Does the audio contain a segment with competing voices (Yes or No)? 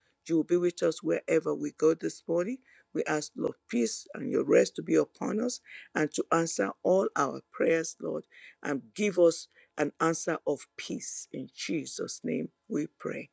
No